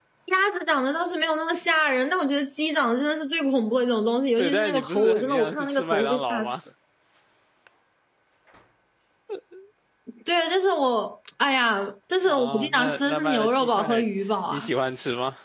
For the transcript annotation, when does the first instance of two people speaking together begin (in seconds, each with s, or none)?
4.4 s